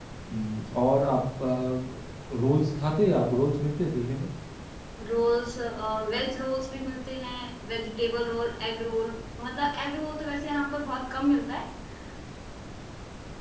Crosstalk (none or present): none